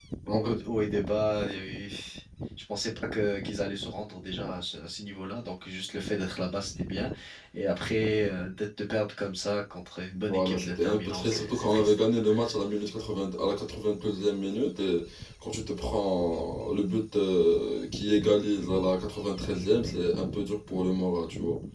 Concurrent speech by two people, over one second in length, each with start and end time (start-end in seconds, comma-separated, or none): 10.2-11.9